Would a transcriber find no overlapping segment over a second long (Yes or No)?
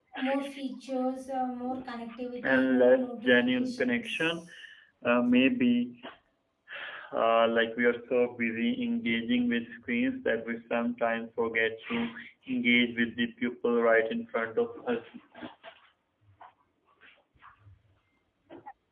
No